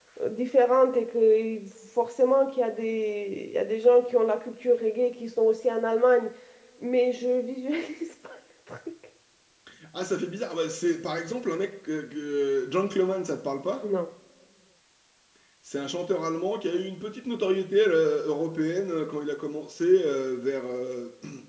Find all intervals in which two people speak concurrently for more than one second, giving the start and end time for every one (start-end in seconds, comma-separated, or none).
none